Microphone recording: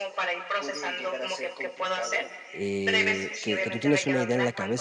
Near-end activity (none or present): present